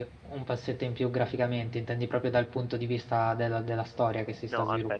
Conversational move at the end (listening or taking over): taking over